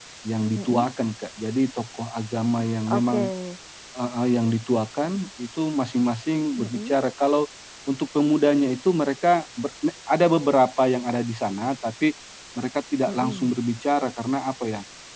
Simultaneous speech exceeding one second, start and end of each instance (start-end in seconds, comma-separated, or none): none